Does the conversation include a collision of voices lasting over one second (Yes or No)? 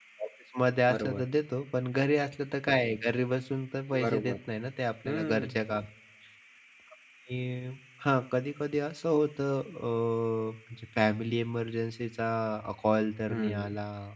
No